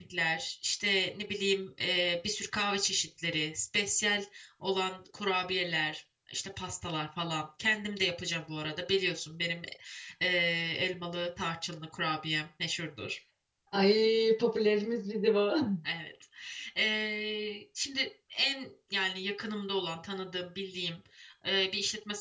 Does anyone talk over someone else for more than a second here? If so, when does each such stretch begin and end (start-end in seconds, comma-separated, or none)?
none